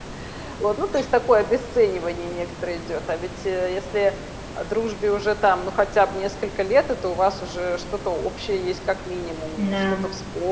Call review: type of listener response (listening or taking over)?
listening